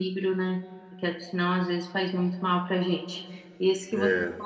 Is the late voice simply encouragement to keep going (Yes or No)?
Yes